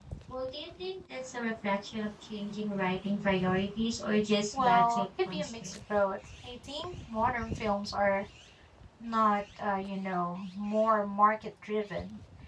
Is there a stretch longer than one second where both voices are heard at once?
Yes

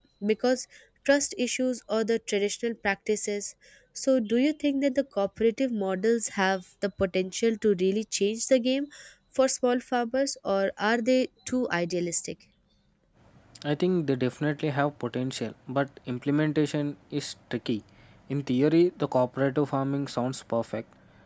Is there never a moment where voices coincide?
Yes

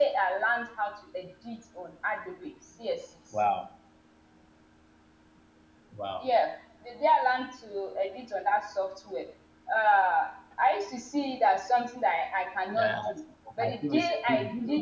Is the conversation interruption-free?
No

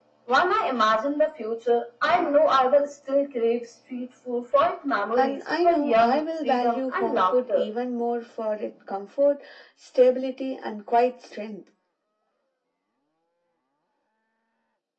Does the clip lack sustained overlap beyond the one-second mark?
No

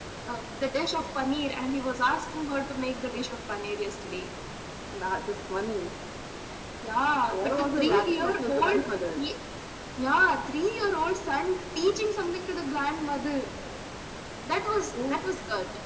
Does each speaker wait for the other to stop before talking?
No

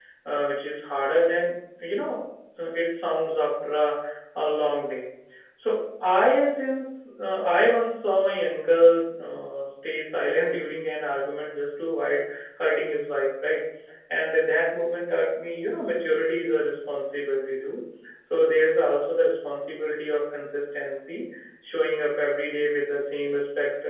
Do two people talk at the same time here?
No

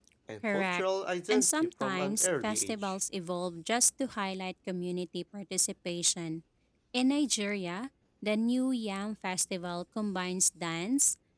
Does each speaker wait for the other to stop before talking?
No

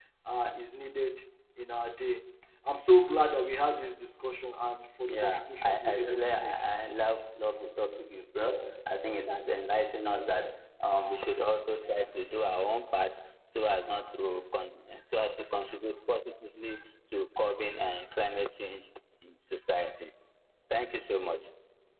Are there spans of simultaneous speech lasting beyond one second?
Yes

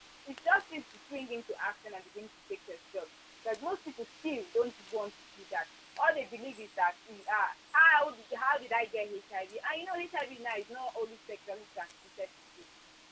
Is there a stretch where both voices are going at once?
No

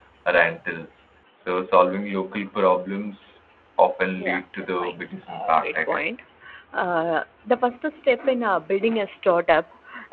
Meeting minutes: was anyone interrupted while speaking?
Yes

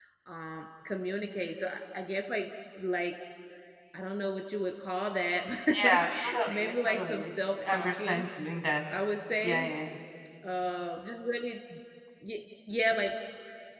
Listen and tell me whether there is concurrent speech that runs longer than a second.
Yes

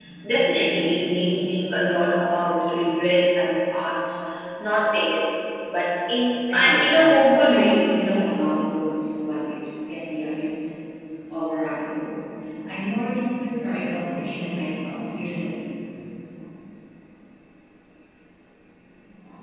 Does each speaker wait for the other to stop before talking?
No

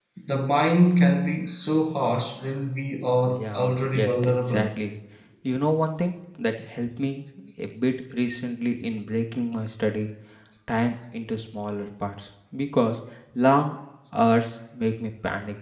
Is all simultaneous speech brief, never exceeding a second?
No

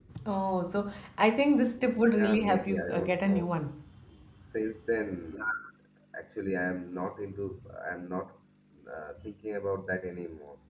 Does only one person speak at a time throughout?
No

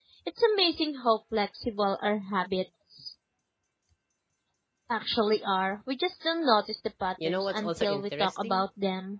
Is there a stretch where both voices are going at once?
Yes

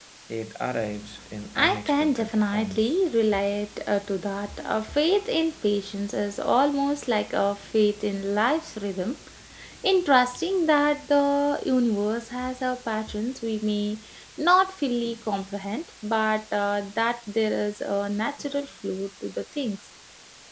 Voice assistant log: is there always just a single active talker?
No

